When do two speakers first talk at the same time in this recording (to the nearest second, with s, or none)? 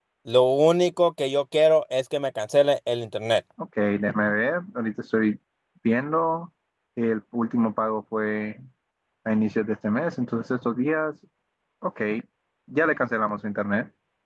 none